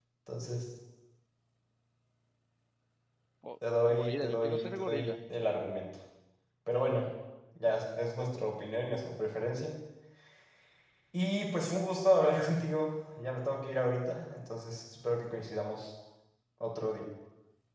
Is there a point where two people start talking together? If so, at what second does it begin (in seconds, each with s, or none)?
3.9 s